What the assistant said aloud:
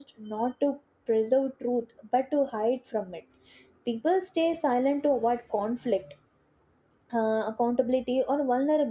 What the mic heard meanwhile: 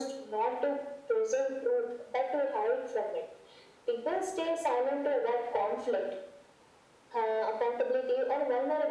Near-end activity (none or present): none